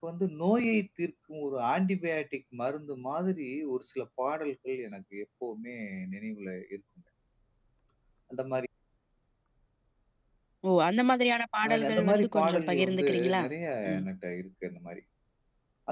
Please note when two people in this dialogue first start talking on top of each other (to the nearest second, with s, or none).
12 s